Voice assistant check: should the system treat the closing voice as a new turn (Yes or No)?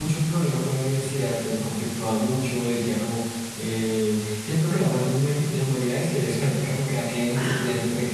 No